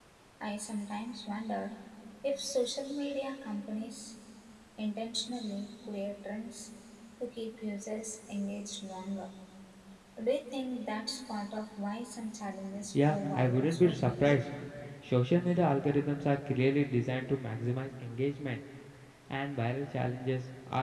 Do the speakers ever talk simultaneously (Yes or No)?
Yes